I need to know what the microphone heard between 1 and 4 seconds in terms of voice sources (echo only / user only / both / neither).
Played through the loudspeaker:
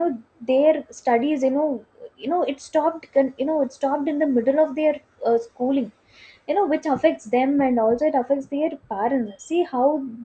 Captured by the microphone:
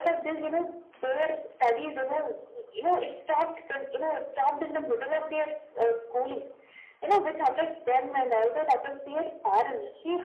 echo only